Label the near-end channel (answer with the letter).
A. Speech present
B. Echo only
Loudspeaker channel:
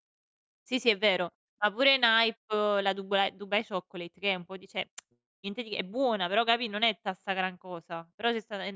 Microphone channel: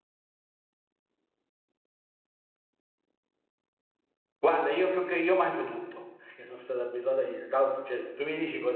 A